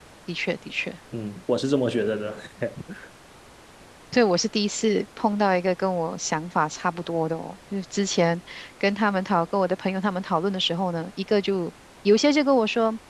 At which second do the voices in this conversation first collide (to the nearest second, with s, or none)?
none